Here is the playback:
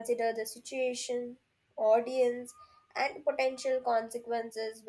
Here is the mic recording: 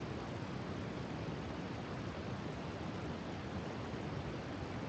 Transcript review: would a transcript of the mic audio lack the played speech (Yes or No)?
Yes